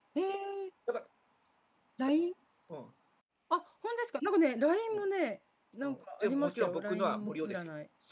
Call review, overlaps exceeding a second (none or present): present